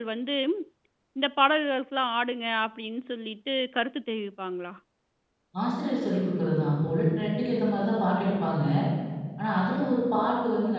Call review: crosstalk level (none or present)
none